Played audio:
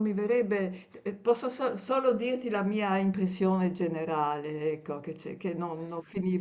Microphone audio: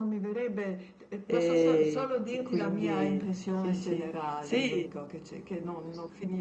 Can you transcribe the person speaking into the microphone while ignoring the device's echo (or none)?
E, e quindi sì, sì, sì,